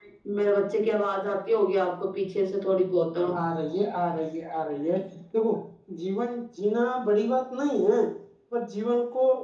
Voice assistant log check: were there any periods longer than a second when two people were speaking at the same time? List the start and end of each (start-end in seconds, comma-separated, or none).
none